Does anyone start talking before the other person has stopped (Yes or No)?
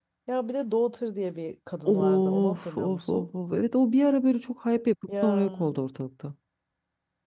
Yes